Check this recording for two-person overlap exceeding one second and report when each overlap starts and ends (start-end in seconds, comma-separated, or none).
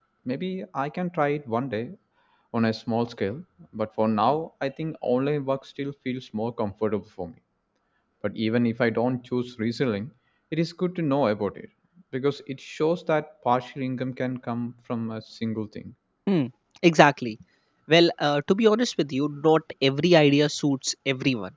none